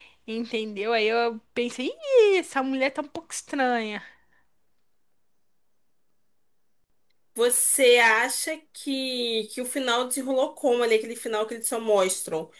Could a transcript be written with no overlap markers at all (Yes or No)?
Yes